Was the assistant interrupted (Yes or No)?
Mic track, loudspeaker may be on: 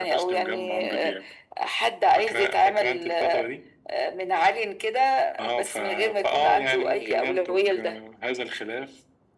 No